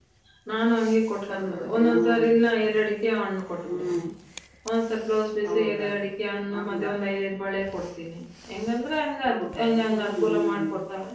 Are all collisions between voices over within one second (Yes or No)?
No